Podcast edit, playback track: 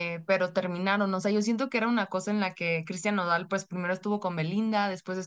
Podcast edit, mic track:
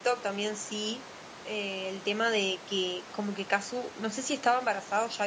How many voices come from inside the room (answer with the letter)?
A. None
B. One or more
B